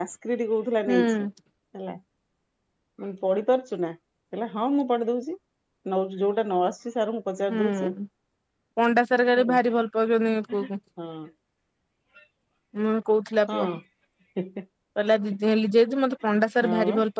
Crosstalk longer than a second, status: none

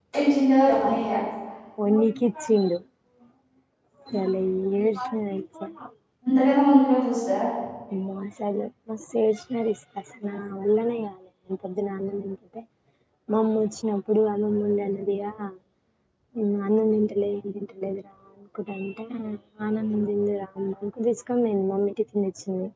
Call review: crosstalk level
none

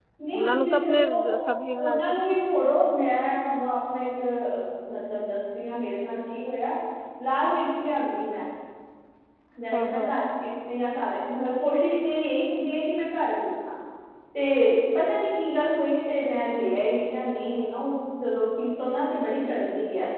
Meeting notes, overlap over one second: present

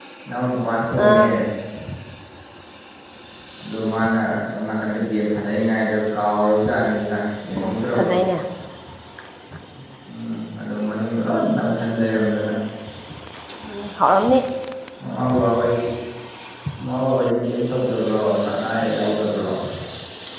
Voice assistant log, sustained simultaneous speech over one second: none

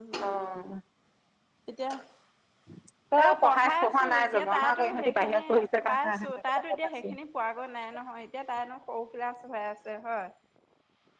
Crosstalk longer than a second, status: present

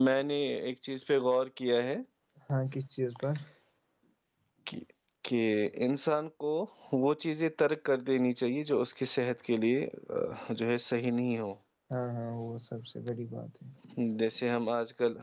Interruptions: none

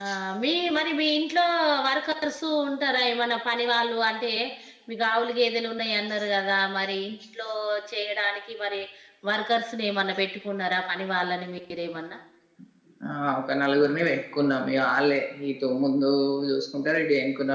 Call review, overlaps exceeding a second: none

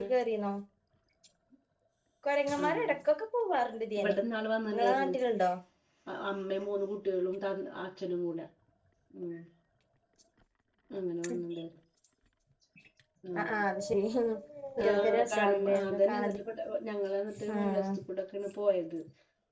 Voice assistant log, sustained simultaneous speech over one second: present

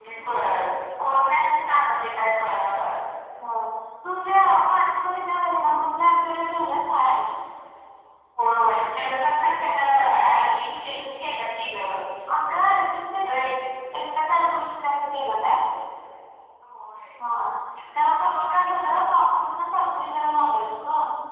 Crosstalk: none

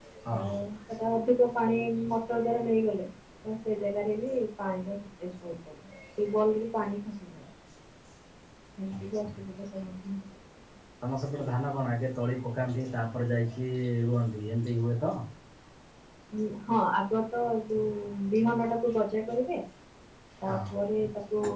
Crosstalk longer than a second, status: none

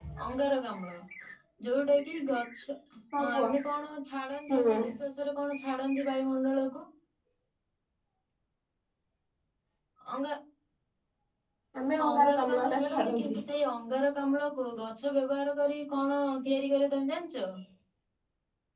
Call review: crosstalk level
present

